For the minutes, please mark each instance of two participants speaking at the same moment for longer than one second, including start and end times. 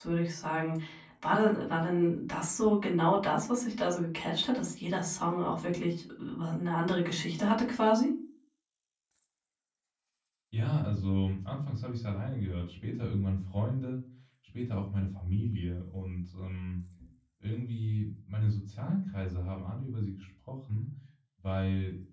none

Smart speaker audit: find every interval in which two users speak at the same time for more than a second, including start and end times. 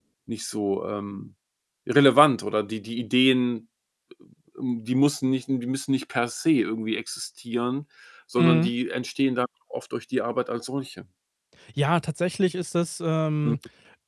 none

